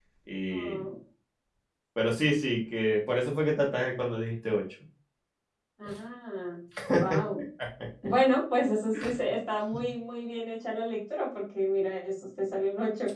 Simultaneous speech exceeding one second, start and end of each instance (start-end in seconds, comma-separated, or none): none